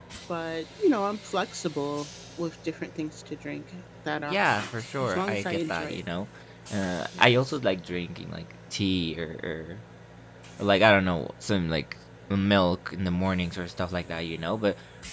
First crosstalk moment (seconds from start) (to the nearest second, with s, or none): 4 s